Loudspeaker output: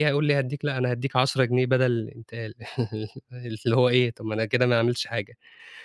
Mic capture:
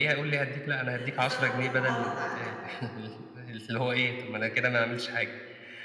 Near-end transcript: آآ بسبب المهارة اللي عندك دي.

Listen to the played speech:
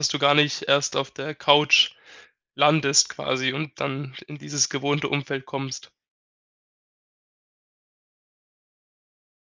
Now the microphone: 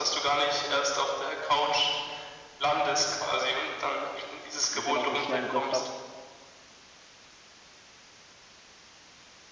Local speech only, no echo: ich eben auch 'n schnellen Griff habe

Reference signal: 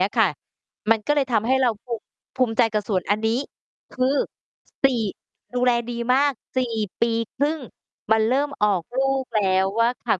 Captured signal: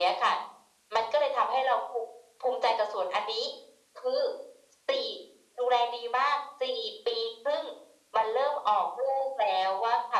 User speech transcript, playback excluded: none

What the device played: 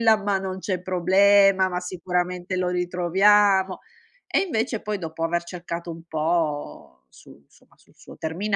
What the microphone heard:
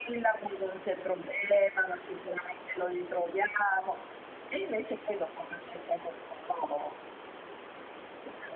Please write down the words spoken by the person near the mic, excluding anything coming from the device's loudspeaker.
none

